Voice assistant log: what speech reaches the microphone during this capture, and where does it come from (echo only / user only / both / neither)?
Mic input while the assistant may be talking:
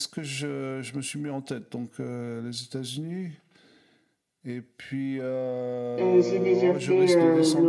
both